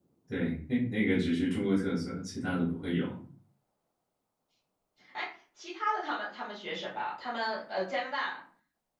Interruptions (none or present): none